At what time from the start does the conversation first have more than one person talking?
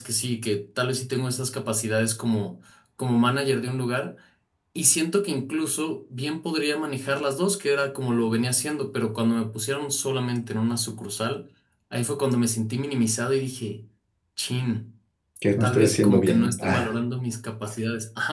16 s

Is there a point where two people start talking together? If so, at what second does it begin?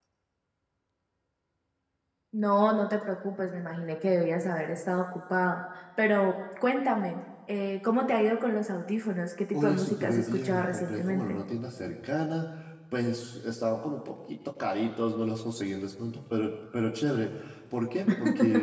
10 s

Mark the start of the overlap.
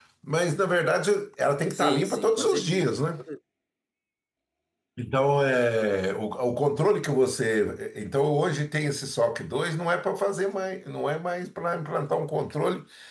2 s

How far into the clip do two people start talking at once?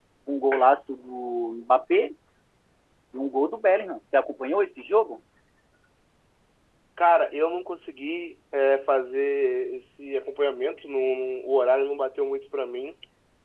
none

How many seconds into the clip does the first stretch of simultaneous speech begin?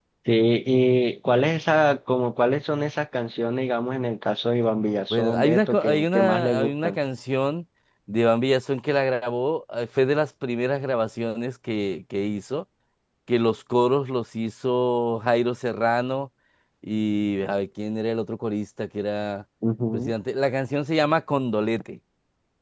5 s

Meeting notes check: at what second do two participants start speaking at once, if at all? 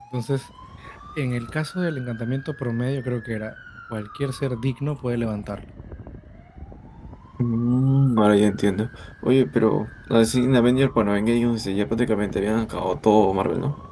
none

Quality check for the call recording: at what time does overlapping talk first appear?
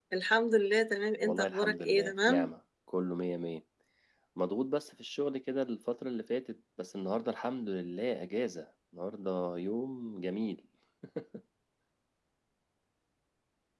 1 s

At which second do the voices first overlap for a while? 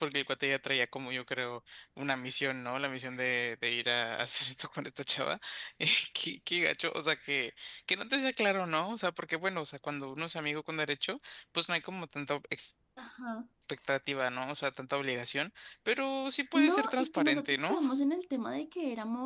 17 s

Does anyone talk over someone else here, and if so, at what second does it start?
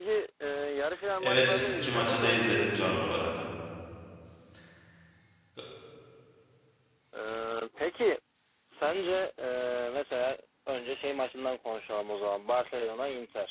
1 s

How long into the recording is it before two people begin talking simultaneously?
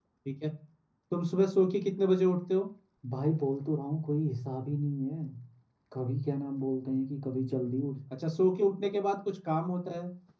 none

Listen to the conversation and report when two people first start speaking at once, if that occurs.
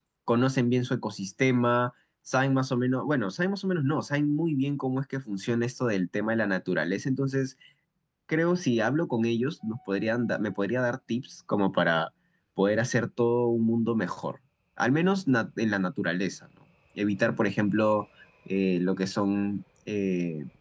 none

